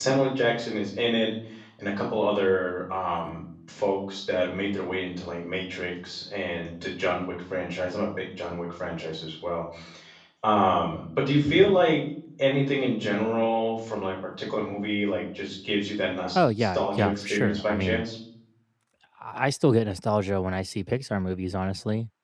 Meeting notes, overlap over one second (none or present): present